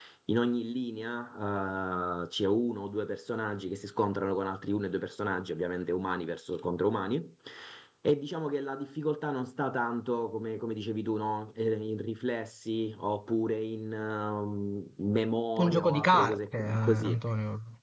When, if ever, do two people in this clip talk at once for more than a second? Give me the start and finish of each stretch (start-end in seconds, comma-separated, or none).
15.6-17.2